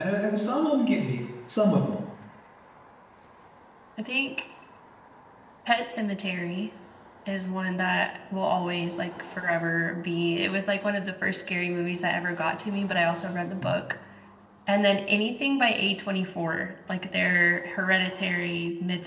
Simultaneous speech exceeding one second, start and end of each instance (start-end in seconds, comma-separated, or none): none